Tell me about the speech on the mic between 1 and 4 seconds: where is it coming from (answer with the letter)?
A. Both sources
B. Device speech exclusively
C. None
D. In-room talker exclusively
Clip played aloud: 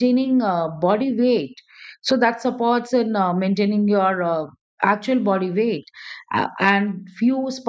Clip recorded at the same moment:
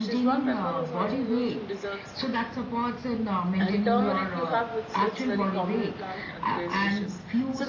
A